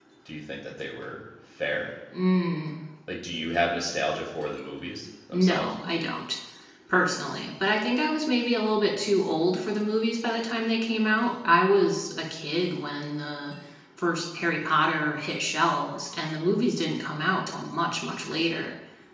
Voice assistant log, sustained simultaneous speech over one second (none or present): none